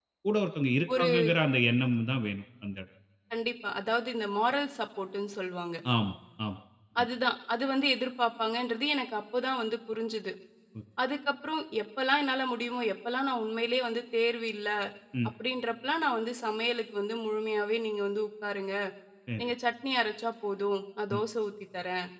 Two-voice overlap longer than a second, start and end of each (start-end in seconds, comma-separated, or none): none